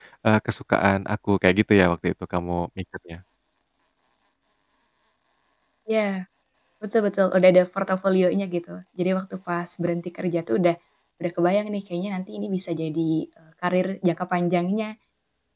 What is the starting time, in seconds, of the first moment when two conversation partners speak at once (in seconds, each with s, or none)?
none